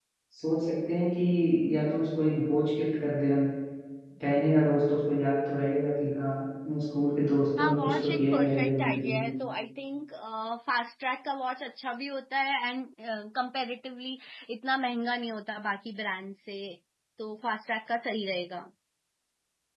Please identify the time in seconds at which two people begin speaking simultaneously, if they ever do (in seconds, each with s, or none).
7.6 s